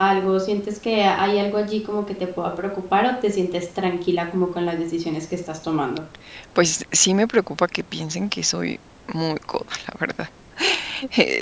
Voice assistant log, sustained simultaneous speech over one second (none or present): none